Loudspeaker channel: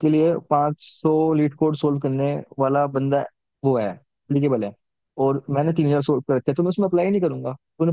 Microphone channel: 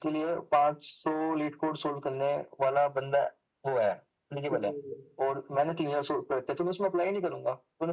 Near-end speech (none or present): present